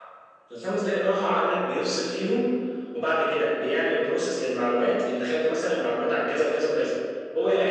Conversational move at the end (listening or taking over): listening